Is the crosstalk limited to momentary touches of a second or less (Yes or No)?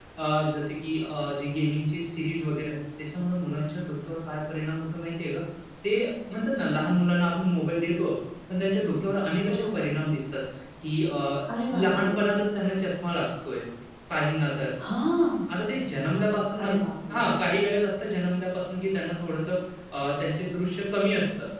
Yes